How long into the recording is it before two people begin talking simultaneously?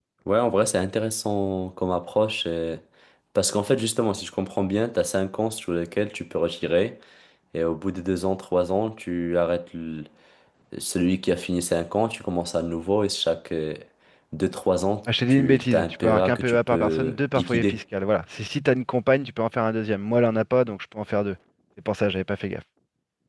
15.1 s

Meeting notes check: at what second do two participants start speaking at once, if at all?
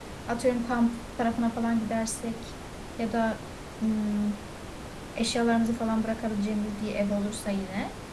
none

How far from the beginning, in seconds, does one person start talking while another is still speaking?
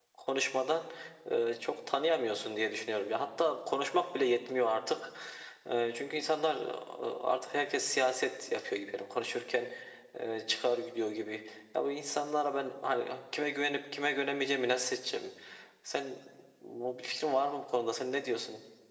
none

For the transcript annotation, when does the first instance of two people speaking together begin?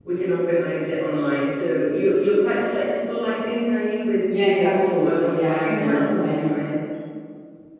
4.3 s

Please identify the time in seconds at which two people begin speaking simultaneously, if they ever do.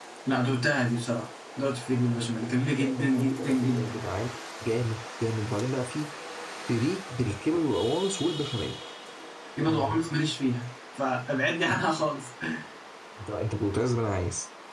2.8 s

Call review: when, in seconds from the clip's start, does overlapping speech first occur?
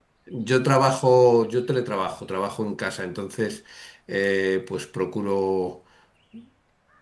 none

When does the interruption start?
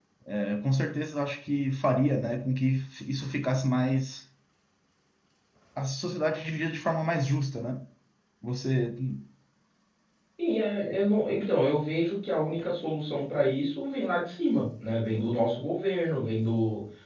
none

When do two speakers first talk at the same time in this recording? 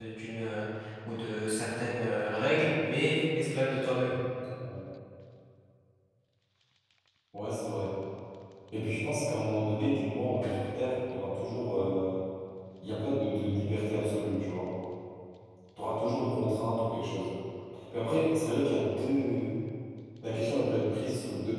none

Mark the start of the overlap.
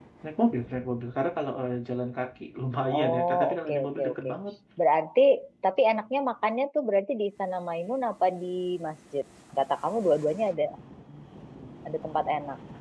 2.9 s

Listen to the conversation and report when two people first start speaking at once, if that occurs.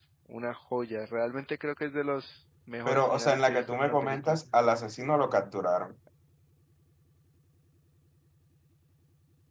2.9 s

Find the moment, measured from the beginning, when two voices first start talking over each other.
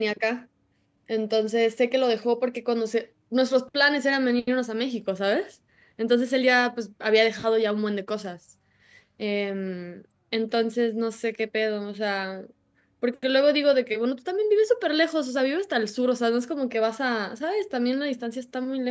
none

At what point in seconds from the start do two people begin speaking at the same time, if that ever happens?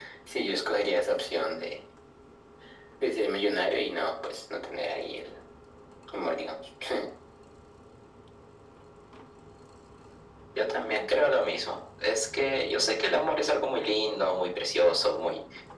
none

